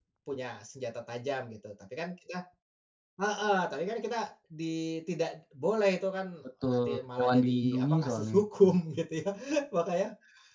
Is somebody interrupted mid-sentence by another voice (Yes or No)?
Yes